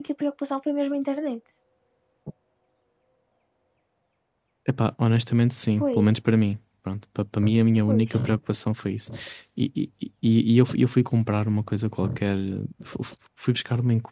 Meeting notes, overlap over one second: none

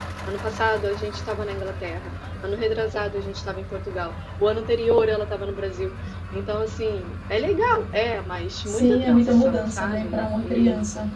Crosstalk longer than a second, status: present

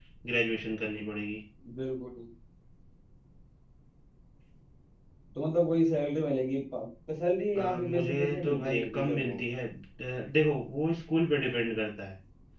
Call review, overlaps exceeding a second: present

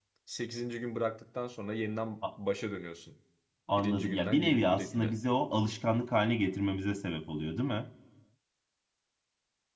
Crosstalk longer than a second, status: present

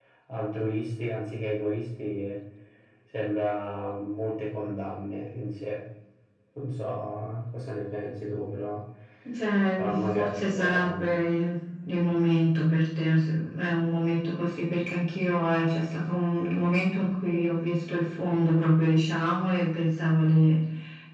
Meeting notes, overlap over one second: present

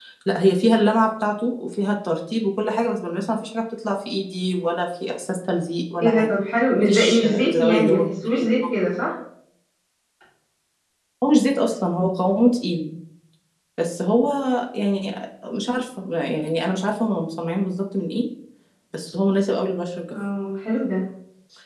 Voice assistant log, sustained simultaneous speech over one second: present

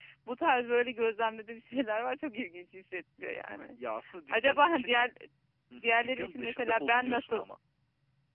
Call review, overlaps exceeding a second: present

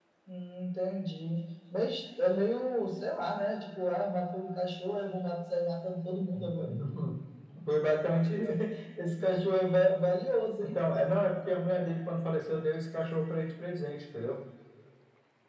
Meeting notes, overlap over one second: none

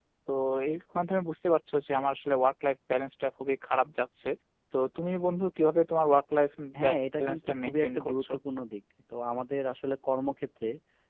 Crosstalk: present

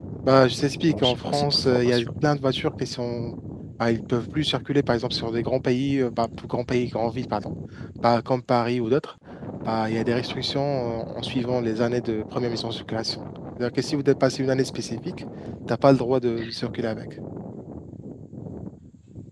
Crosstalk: present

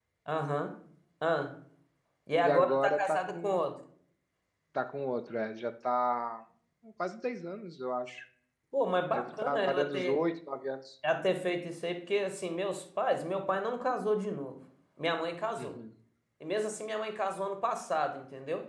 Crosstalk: present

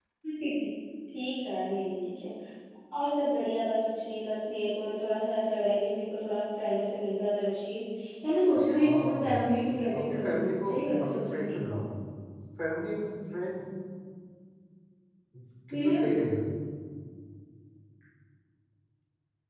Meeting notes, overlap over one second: present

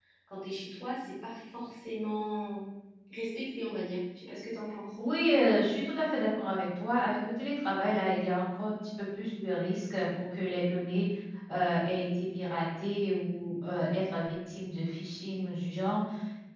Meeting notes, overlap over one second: none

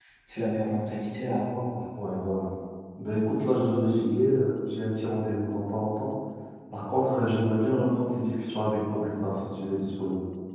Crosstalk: none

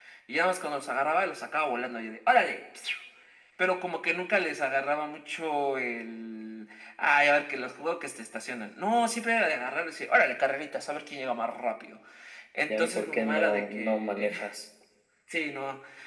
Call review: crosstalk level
present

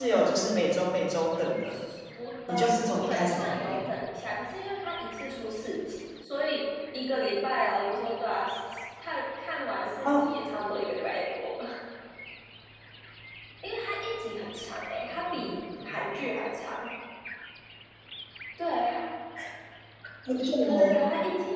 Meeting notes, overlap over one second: present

